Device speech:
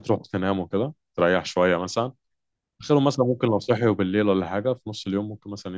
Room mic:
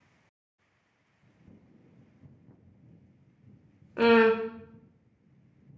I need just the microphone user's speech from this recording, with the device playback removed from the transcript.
امم

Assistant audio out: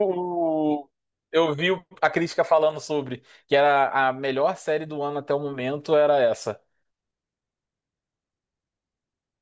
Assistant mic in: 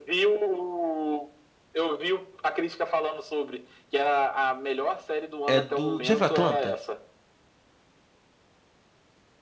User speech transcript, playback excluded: É do. Já viu Atlanta?

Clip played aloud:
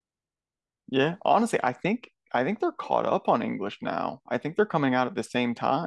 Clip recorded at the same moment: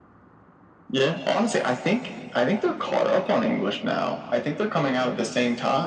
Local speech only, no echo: none

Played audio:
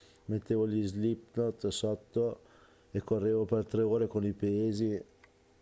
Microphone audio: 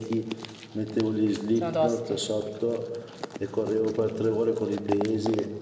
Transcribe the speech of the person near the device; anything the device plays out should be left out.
sono tosti.

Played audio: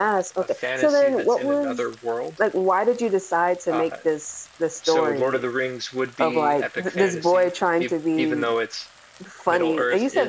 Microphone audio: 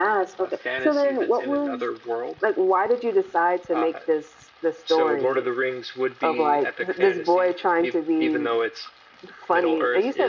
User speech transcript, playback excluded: none

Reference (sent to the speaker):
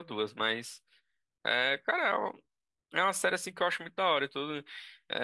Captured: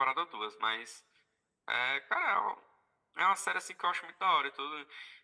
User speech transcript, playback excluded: none

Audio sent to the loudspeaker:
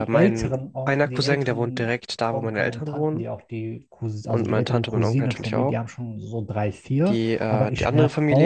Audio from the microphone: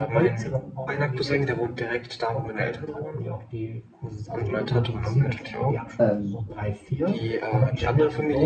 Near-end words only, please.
Ähm,

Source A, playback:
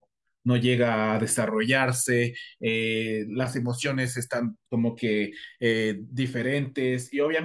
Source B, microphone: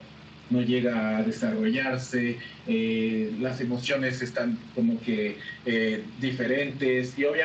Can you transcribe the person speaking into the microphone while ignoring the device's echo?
none

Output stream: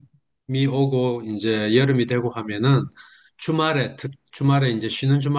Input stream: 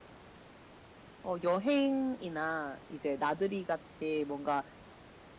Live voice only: 어, 여행이나 이제 나들이 같이 뭔가

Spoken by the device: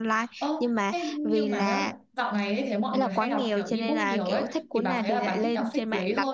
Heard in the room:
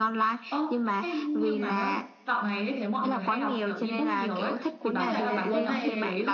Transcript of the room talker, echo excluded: Nghĩa là cái cuốn này

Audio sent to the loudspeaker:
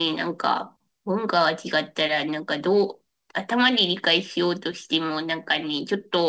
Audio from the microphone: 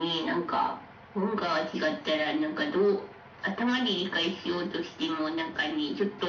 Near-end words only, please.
none

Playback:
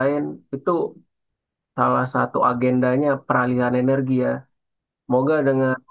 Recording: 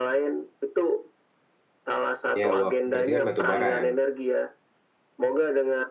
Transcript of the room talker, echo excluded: Ya wah, berarti kan batu bara ya.

